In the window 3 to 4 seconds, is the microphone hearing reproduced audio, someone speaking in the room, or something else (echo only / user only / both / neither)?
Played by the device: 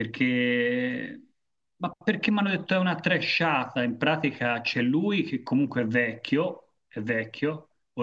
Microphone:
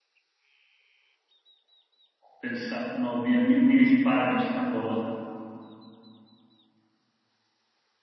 user only